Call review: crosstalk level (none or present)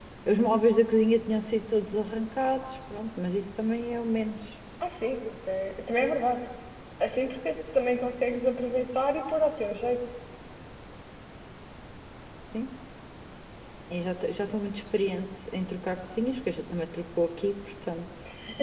none